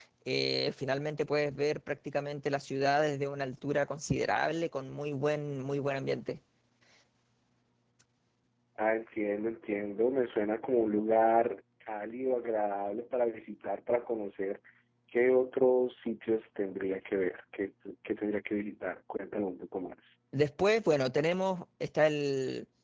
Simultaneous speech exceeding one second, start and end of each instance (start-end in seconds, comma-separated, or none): none